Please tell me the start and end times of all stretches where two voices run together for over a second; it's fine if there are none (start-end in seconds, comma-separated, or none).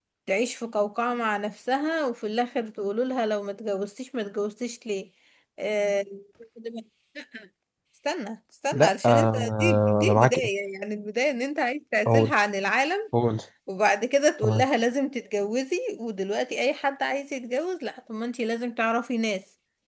8.7-10.5